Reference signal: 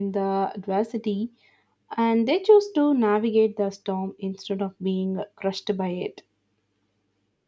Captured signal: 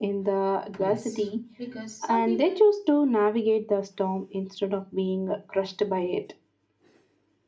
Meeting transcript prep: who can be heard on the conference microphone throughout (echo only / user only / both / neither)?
both